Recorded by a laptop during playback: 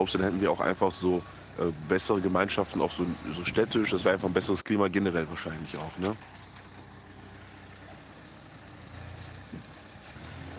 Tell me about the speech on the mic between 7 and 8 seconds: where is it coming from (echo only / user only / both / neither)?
neither